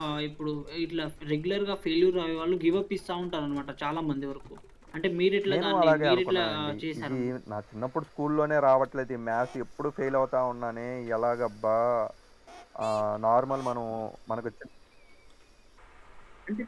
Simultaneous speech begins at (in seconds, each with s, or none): 5.5 s